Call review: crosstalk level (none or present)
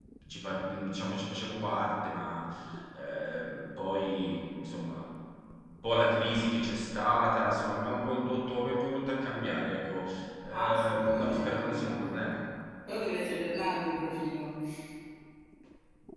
present